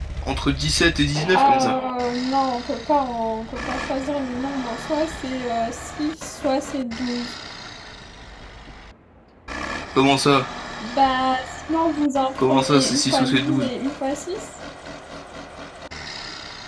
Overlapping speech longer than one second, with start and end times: 12.4-13.7

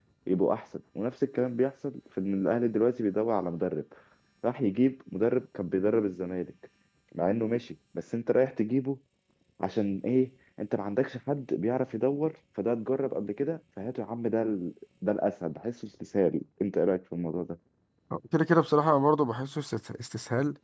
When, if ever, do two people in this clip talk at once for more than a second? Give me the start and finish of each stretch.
none

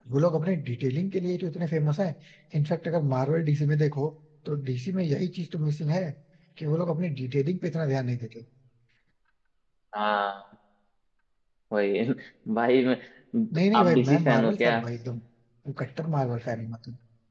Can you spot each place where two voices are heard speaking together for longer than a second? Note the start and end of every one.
13.5-14.8

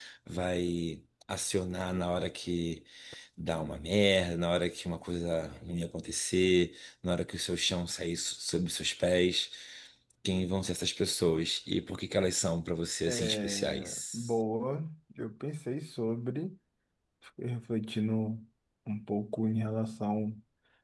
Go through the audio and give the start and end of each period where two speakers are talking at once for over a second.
13.1-14.3

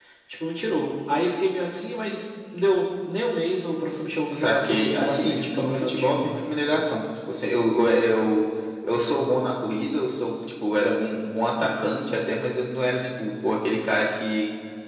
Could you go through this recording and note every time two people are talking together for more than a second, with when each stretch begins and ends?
4.3-6.3

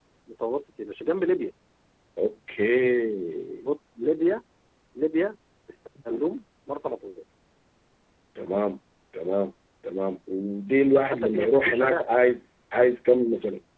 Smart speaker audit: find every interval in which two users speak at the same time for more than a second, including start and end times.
10.8-12.0

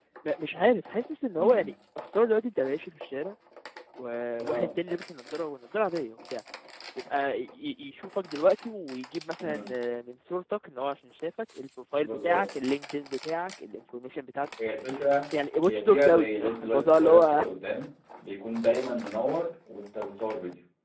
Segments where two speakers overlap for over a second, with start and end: 15.7-17.4

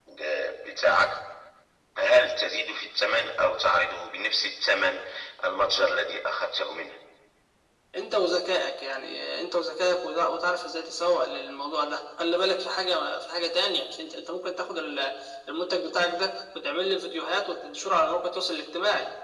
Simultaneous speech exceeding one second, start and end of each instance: none

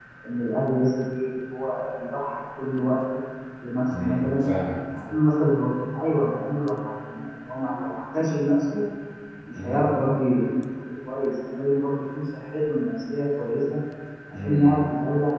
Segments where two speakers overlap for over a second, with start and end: none

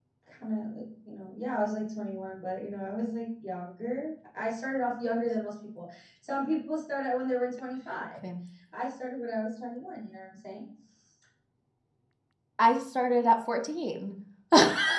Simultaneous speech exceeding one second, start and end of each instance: none

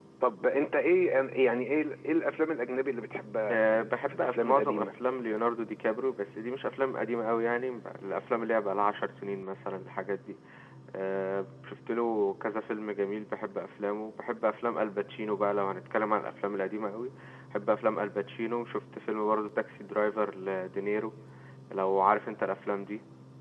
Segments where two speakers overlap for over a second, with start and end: 3.5-4.9

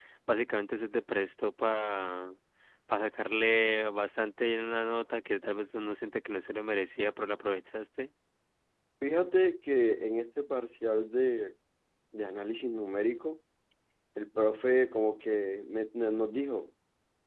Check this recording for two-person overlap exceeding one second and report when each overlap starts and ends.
none

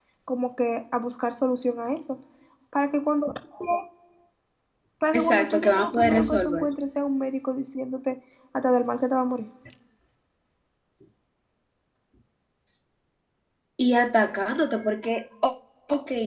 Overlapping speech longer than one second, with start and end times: 5.1-6.7

